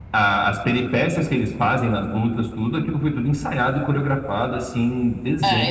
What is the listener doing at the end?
taking over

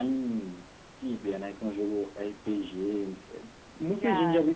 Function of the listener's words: listening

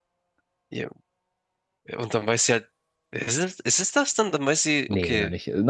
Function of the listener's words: taking over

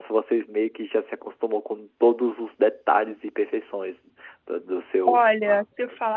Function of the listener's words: taking over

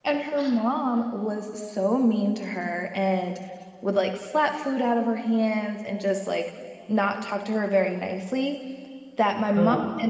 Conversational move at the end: listening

